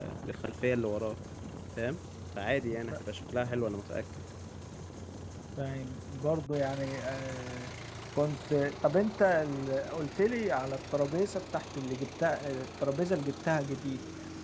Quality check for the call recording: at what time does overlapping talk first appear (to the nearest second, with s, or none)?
none